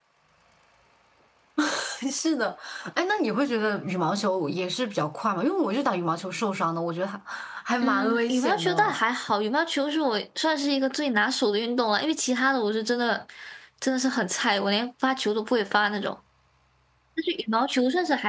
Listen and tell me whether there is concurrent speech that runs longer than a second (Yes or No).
Yes